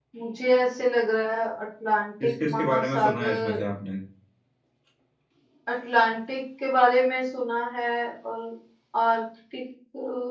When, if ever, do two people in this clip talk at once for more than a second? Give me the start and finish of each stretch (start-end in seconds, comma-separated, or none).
2.2-3.6